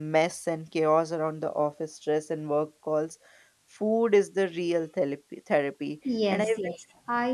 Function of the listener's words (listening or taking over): taking over